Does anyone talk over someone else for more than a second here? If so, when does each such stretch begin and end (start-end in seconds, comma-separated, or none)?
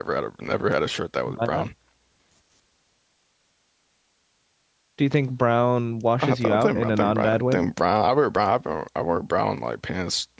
6.2-7.6